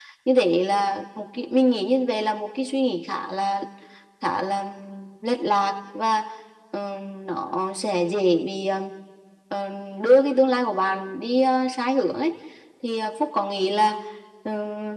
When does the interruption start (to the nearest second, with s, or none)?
none